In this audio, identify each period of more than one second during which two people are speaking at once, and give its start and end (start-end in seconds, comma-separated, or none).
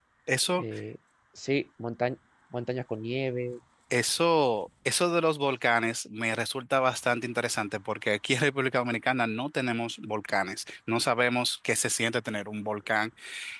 none